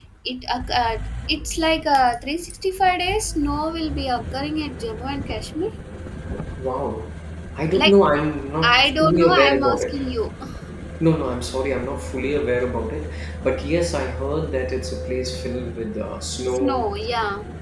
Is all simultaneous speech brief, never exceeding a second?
No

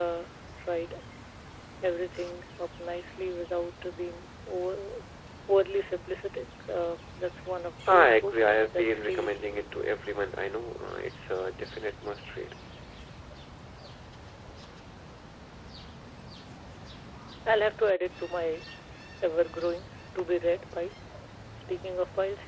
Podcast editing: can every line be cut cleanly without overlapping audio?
No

